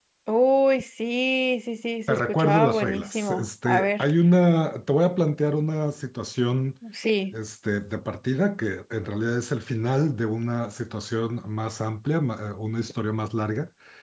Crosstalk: present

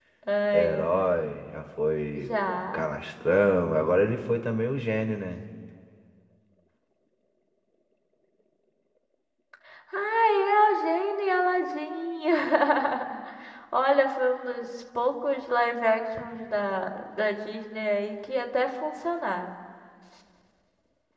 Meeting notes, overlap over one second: none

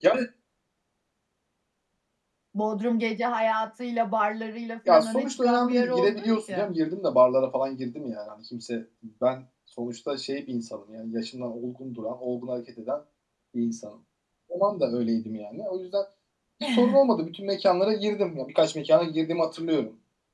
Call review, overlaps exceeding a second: present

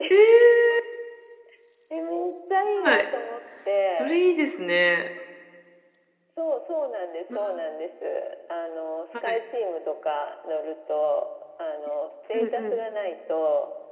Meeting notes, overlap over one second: none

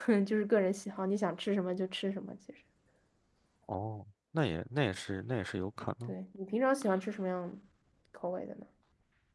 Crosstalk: none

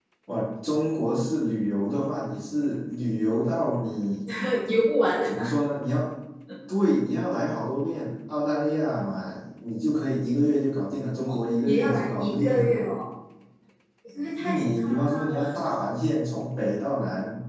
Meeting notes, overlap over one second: present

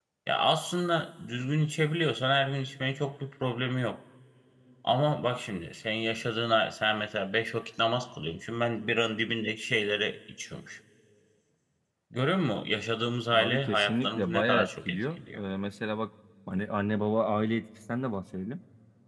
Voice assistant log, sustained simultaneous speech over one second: present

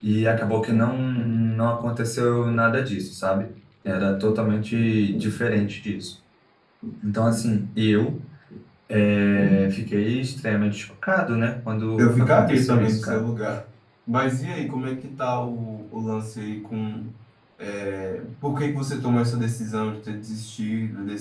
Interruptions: present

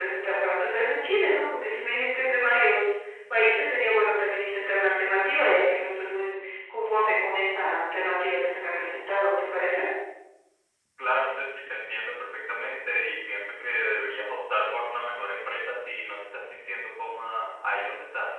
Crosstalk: none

